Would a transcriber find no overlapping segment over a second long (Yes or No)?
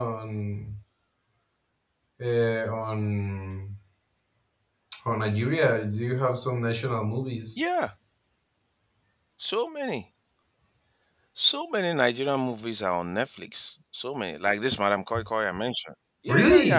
Yes